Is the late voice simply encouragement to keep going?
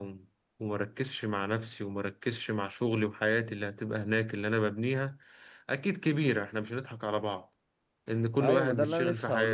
No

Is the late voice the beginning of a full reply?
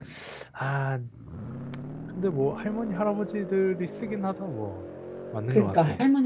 Yes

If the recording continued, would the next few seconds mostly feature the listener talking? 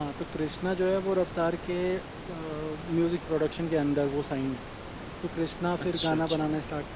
No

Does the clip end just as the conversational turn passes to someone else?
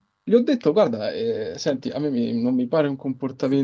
No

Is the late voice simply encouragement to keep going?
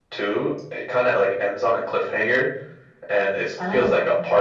Yes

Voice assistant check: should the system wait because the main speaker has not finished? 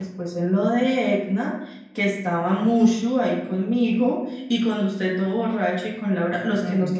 Yes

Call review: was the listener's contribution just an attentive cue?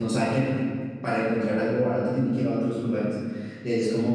No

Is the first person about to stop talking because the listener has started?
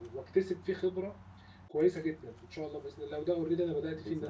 No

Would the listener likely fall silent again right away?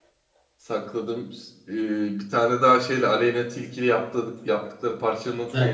No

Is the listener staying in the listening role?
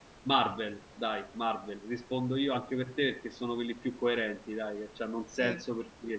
Yes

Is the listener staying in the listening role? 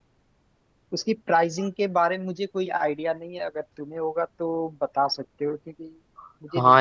No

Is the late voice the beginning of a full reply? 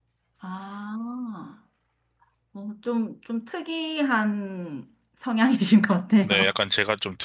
Yes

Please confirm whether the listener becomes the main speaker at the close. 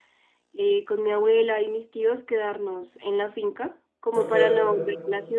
No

